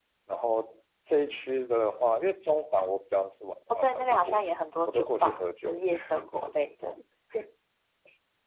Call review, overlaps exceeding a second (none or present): present